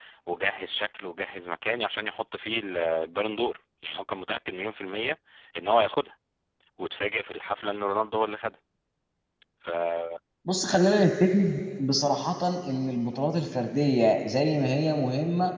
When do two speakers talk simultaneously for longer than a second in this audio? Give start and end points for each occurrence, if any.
none

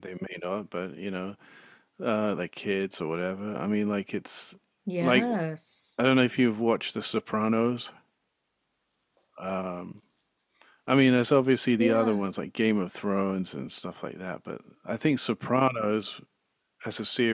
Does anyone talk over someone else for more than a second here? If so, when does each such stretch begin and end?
none

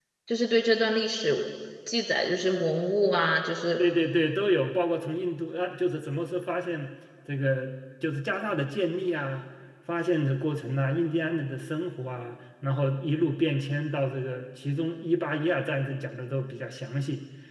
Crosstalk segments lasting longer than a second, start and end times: none

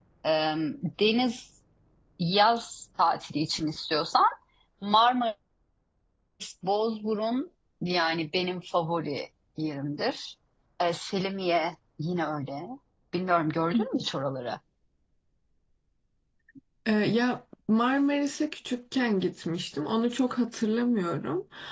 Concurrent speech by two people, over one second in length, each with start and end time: none

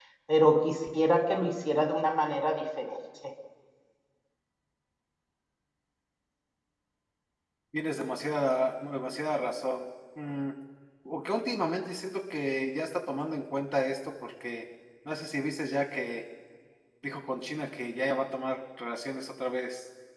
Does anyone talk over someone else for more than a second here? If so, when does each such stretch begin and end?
none

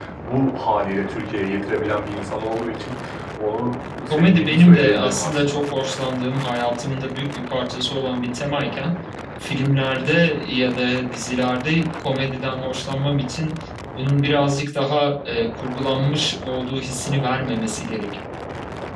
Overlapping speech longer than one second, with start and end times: 4.1-5.6

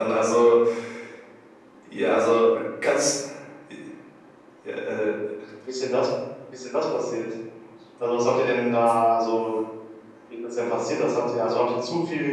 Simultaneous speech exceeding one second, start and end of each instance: none

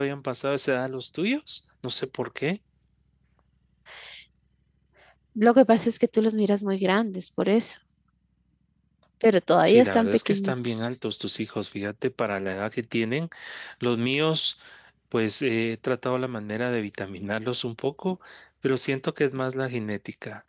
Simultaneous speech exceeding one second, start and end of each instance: 9.6-11.0

